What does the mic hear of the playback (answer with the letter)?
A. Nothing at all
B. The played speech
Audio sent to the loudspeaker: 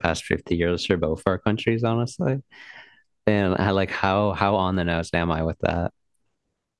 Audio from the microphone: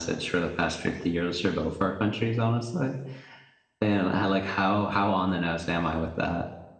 B